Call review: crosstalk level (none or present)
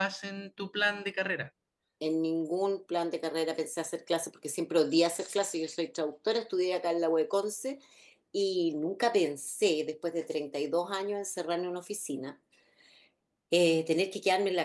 none